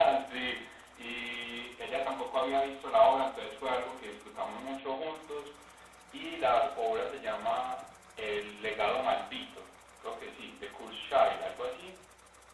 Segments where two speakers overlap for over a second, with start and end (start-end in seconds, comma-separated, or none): none